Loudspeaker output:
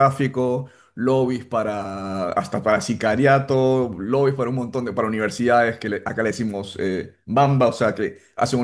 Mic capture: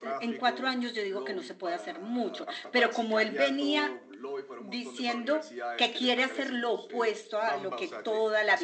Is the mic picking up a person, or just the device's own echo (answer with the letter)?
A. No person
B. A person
B